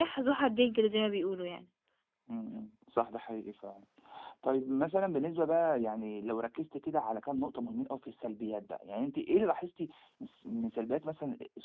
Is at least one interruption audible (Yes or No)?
No